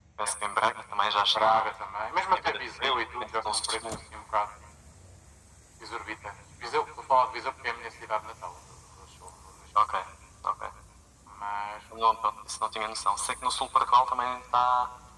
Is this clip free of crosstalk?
No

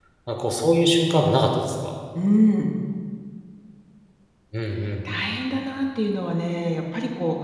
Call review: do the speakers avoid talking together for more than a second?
Yes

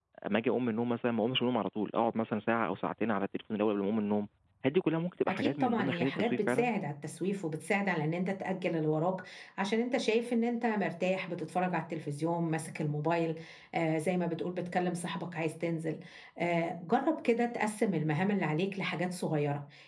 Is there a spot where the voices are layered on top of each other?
Yes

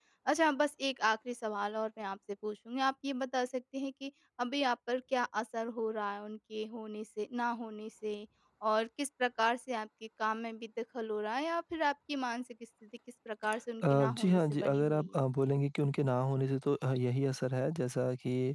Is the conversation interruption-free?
No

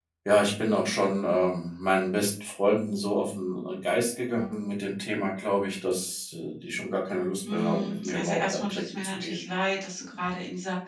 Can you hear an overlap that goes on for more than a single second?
Yes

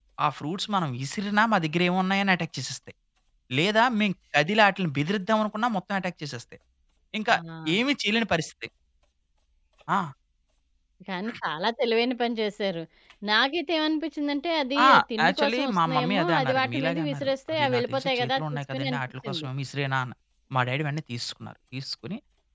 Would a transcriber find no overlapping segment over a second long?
No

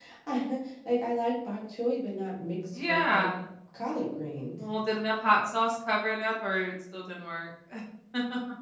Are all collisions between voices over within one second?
Yes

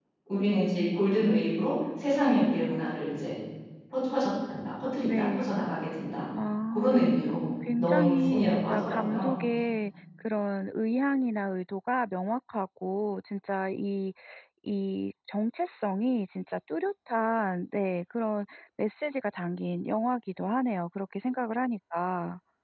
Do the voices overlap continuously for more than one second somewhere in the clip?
Yes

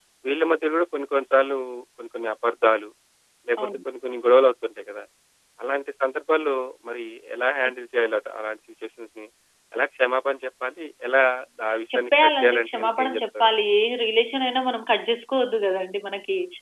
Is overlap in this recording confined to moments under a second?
No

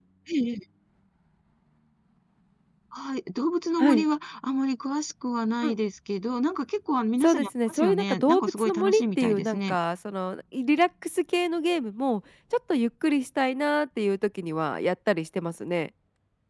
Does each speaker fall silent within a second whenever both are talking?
No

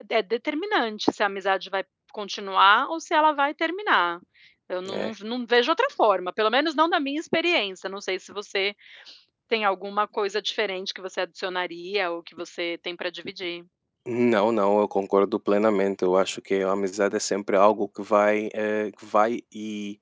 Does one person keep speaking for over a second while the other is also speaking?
No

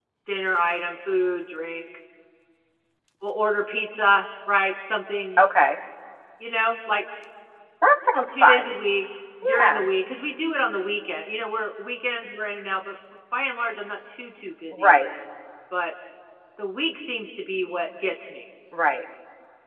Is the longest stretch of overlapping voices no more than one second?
Yes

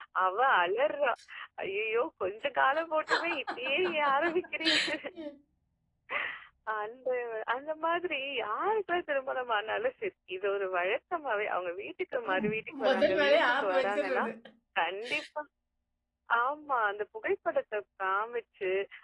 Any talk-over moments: Yes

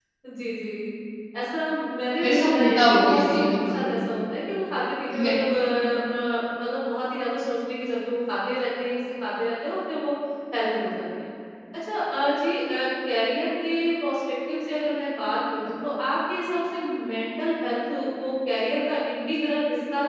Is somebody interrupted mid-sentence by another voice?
Yes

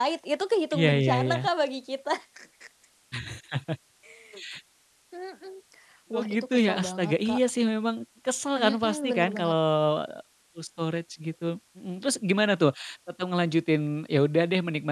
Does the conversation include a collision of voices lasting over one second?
Yes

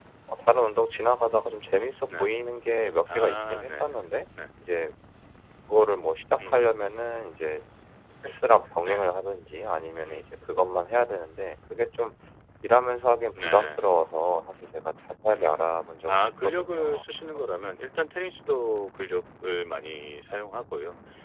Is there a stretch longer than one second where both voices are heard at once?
Yes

